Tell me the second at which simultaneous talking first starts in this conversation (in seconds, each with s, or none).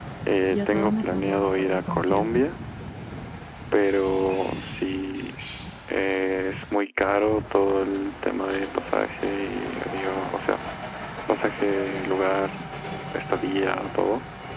0.5 s